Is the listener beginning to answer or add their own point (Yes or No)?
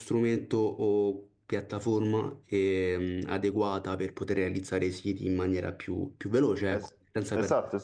Yes